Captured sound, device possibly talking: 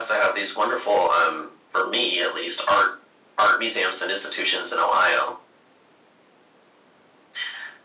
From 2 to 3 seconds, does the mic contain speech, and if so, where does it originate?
echo only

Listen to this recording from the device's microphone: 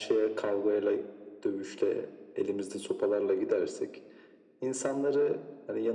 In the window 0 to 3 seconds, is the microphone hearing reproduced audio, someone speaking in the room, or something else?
echo only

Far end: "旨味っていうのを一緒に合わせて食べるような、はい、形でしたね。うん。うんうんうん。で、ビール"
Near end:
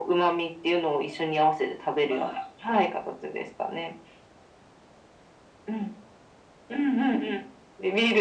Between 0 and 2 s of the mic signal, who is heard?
echo only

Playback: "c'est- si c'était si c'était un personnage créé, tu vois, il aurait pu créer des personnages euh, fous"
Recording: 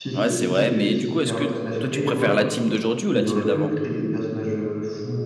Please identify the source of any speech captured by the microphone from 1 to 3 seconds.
both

